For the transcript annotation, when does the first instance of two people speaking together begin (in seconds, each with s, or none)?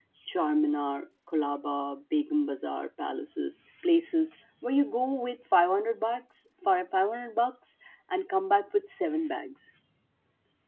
none